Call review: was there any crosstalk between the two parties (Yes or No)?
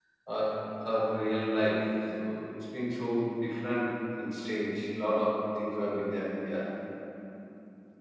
No